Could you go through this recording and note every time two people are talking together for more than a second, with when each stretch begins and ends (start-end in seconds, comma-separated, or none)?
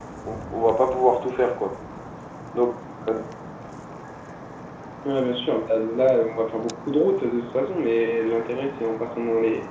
none